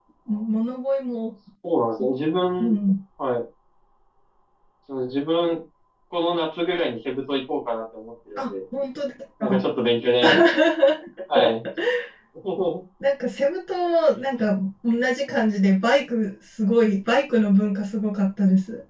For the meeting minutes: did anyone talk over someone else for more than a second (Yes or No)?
No